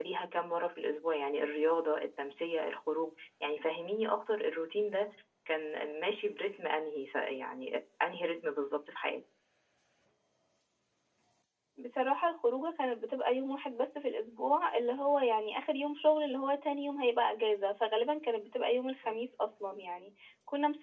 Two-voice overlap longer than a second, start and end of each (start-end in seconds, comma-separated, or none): none